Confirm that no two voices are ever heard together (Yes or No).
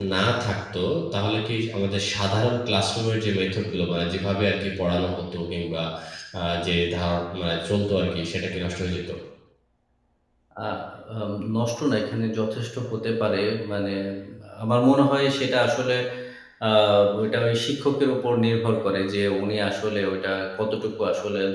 Yes